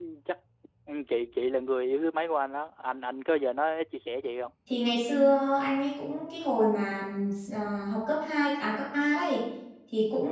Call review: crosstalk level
none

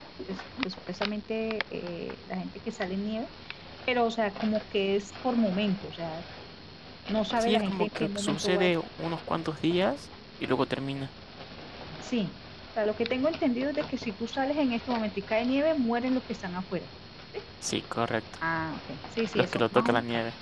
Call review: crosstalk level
present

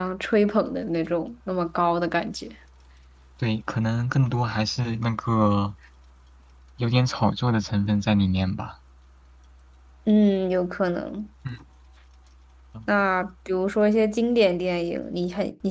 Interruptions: none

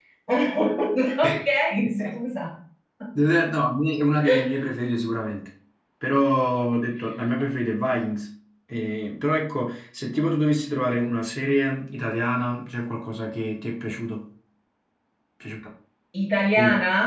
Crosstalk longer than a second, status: none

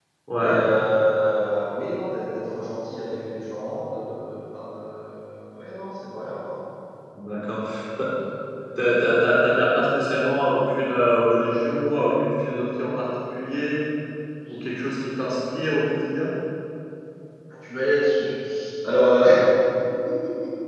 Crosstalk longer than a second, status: none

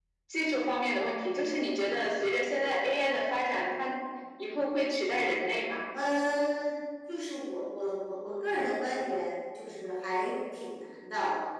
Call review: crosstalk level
none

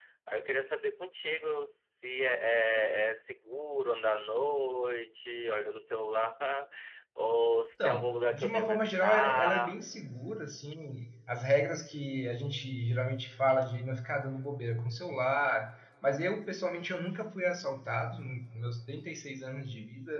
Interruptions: present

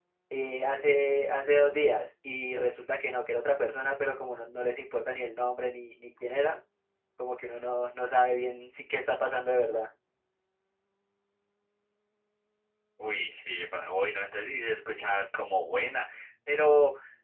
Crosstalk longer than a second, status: none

